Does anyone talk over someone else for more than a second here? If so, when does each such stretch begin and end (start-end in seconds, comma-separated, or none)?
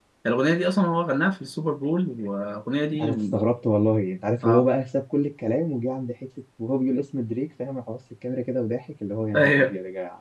none